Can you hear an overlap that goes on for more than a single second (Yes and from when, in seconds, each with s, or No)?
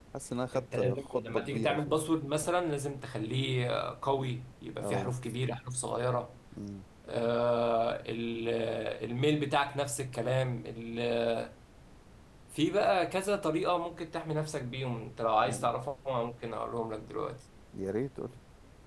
Yes, from 0.5 s